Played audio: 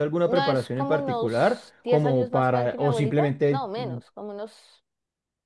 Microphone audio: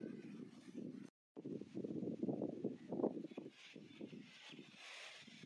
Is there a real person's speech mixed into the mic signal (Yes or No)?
No